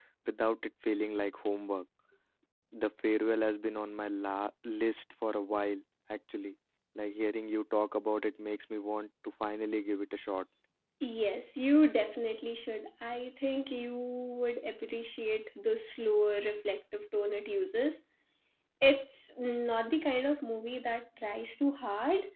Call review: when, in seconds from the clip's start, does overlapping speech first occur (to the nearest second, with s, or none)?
none